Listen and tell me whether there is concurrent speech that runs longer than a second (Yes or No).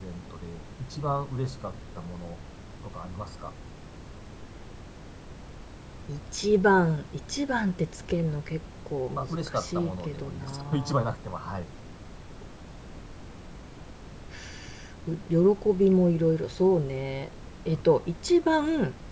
Yes